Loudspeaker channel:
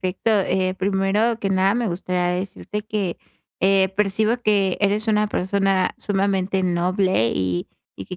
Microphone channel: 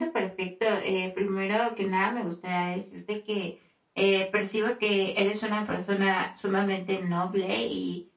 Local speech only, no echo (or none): none